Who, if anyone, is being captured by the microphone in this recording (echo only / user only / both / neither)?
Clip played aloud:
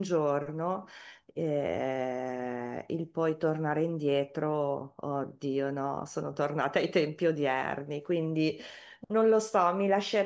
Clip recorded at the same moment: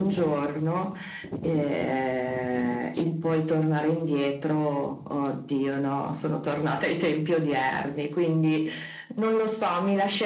echo only